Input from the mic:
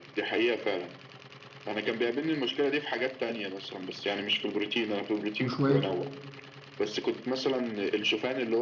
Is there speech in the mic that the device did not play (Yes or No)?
Yes